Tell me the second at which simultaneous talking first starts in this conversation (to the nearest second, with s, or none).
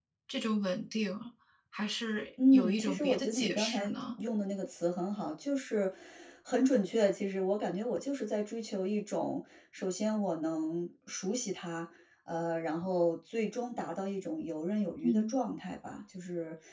3 s